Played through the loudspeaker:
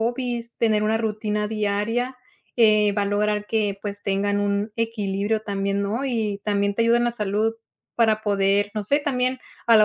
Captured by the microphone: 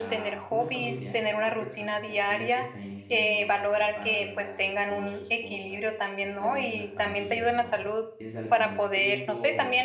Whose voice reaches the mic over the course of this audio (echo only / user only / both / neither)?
both